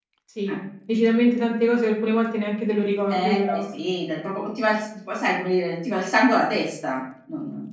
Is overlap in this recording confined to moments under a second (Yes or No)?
Yes